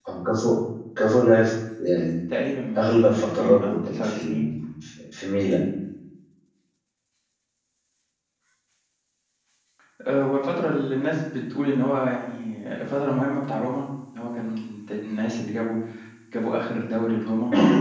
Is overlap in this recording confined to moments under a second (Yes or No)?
No